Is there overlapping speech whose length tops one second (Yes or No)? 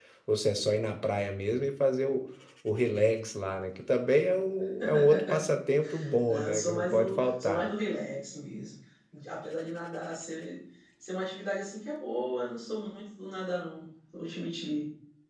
Yes